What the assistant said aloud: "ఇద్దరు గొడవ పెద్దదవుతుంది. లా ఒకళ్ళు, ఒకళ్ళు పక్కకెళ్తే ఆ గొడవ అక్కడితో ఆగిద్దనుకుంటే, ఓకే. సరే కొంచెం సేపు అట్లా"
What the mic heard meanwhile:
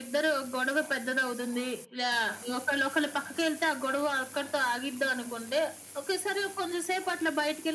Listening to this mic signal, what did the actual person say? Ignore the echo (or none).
none